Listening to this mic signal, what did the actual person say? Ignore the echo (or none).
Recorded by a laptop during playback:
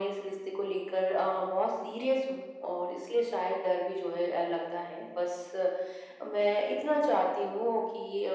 none